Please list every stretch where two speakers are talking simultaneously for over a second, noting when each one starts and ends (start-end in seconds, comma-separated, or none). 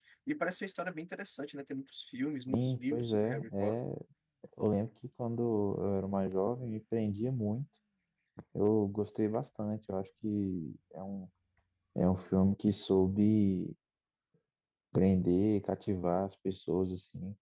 2.5-3.7